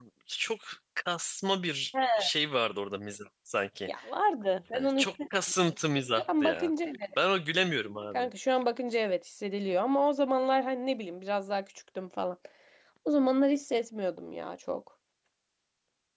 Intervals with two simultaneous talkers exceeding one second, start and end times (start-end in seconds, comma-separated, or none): none